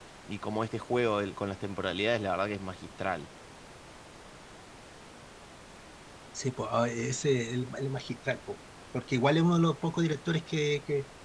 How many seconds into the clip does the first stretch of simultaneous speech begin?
none

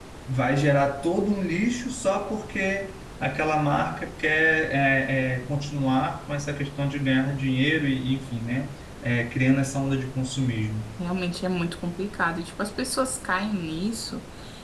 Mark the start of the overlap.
none

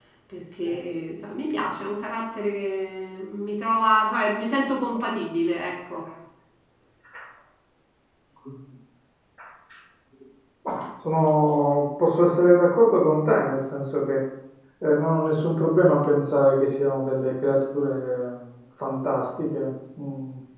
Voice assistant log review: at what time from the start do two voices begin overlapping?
none

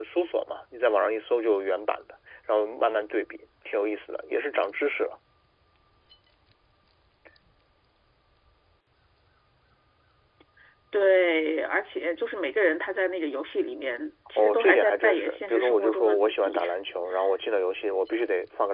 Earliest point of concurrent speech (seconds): 14.4 s

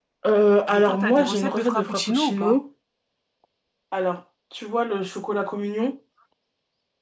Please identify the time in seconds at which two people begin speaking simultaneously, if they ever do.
0.7 s

